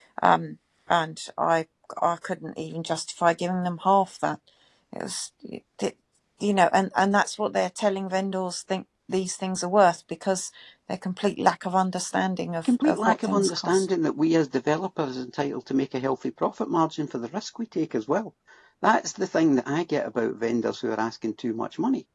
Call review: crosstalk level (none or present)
present